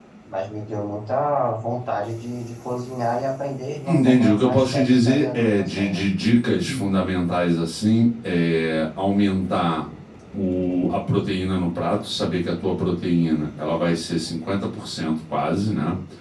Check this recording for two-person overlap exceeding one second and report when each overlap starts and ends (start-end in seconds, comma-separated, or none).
3.8-6.0